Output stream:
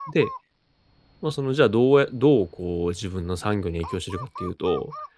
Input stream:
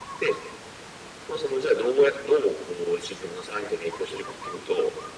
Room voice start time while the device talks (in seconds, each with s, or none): none